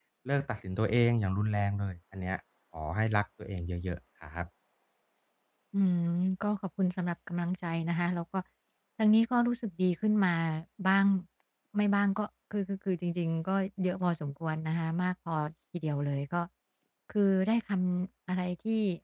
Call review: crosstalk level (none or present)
none